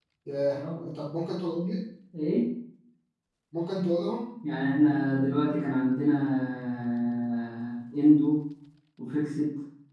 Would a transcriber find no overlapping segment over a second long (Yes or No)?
Yes